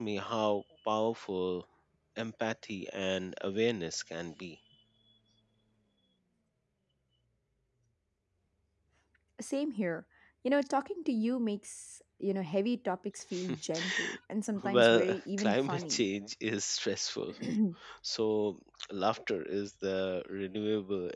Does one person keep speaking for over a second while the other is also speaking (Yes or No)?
Yes